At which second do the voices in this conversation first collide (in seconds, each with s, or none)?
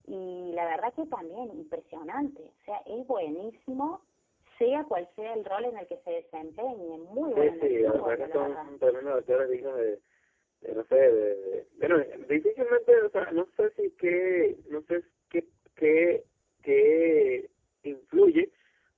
7.3 s